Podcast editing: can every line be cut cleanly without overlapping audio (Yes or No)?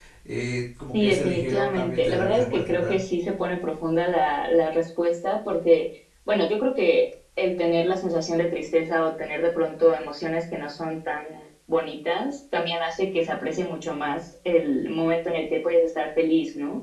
No